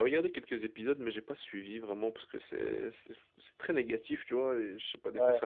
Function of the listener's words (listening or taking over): listening